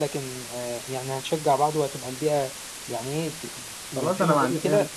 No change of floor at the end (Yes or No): No